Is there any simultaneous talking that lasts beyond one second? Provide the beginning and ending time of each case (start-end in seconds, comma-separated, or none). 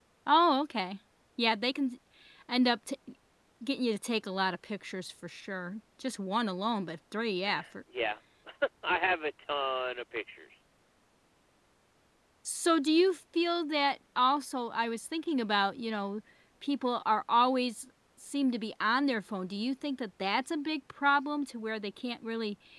none